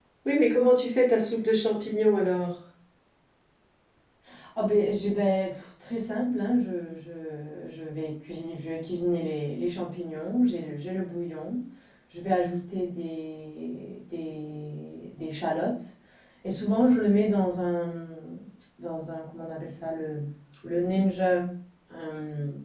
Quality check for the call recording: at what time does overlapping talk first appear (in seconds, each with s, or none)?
none